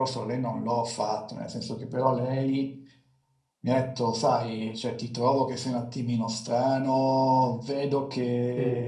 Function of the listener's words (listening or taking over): listening